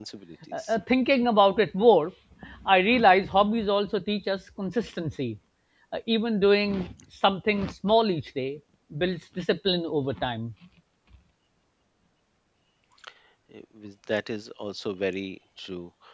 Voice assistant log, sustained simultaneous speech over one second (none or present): none